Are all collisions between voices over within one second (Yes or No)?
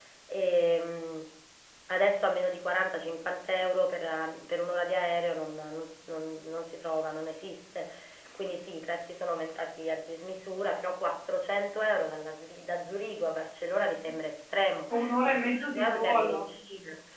No